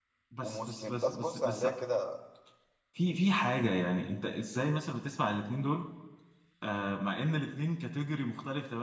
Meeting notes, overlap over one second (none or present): present